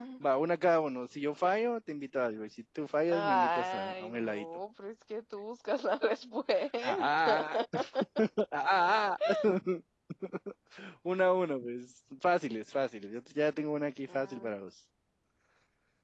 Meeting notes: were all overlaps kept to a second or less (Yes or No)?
No